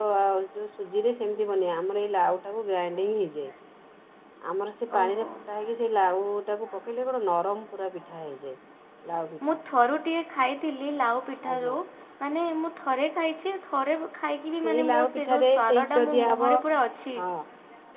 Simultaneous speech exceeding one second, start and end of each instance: 14.6-16.4

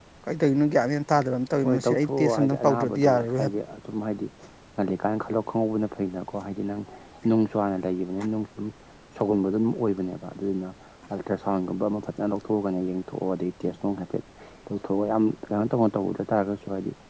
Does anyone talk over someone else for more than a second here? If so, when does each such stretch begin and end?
1.6-3.5

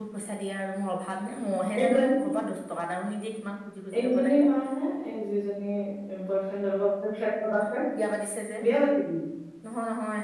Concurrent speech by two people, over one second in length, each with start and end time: none

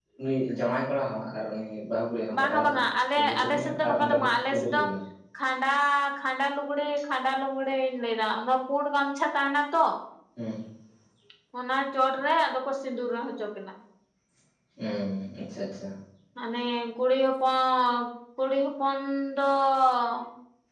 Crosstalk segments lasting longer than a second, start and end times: 3.1-4.8

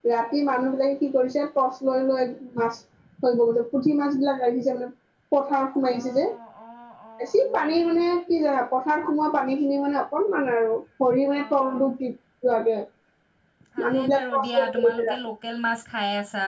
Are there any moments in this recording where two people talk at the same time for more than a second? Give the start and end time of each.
13.8-15.2

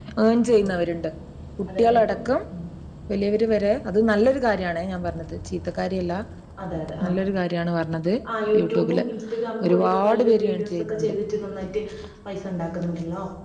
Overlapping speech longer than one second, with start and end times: 9.7-11.1

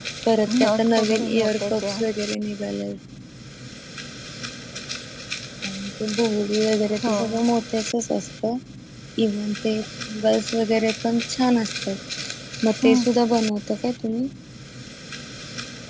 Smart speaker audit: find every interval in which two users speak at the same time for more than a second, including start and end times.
0.6-1.9

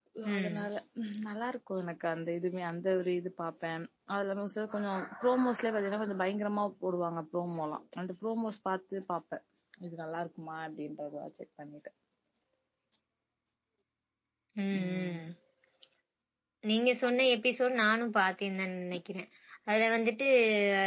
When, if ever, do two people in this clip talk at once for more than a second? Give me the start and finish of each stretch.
none

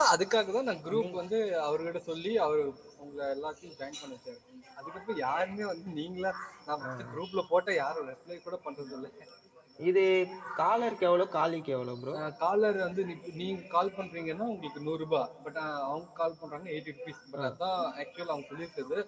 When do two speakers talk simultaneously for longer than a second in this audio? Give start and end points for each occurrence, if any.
none

